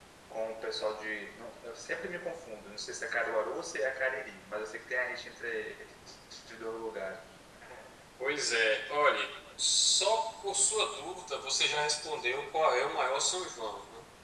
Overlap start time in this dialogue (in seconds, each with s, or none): none